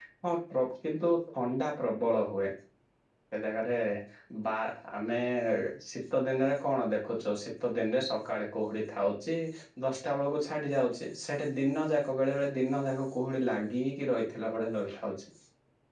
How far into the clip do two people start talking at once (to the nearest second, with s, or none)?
none